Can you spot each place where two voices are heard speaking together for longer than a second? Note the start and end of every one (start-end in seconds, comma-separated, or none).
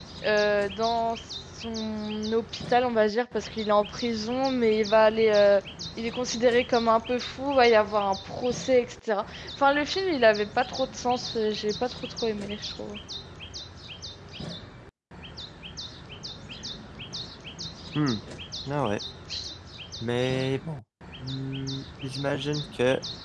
none